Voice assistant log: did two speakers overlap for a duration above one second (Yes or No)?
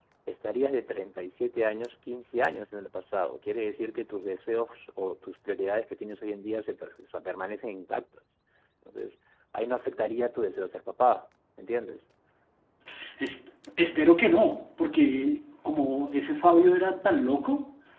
No